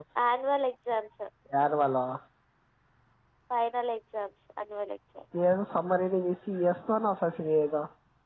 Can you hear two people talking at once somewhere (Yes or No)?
No